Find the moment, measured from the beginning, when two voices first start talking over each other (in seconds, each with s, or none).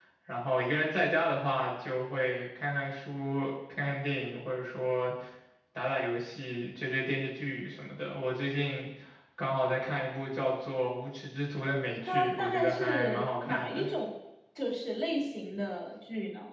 12.0 s